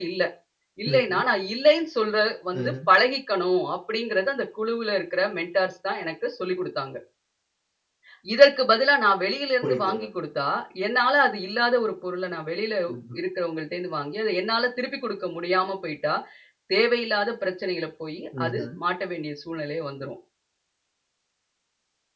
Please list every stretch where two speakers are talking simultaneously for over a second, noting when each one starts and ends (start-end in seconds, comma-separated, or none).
none